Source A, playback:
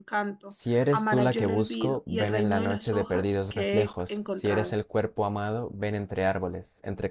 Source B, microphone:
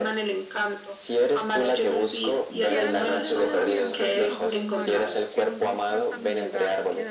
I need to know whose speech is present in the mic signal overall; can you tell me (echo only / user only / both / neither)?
both